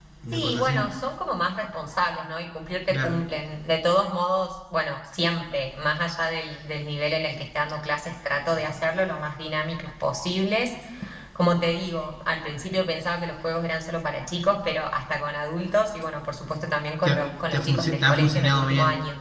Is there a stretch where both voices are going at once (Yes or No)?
Yes